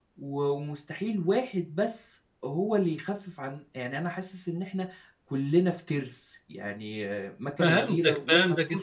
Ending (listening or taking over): taking over